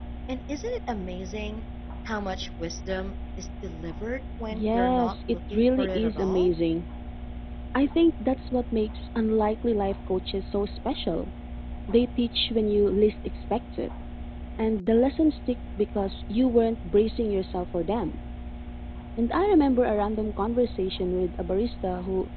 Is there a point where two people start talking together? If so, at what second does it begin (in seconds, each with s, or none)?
4.5 s